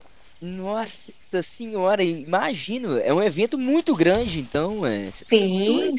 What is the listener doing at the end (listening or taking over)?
taking over